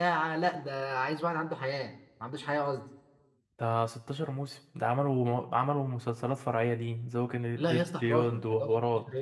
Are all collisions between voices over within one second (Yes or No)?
No